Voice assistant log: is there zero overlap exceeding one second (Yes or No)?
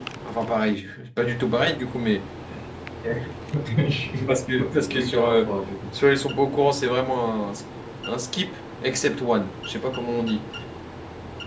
Yes